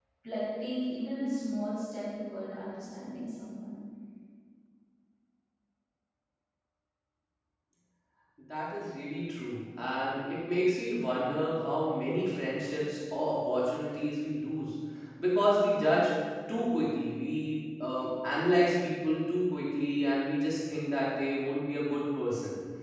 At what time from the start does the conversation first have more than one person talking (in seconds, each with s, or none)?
none